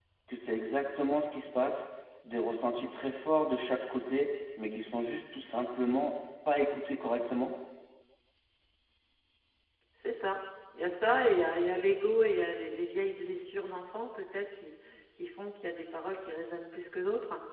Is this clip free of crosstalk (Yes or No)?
Yes